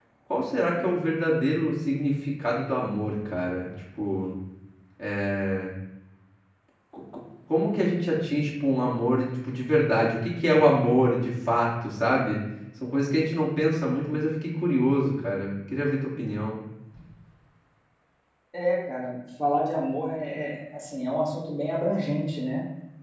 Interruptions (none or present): none